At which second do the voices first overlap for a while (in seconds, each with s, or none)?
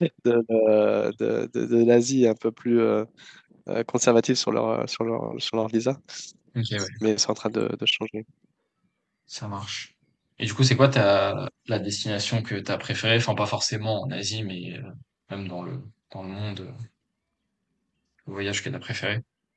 none